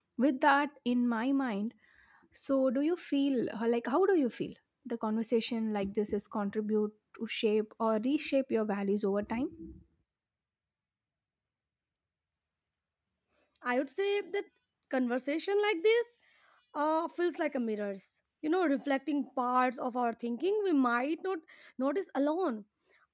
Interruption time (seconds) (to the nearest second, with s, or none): none